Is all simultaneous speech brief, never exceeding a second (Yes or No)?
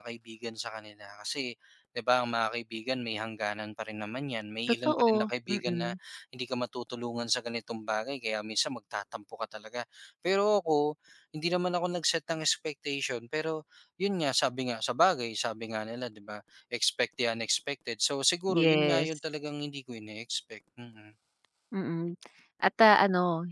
No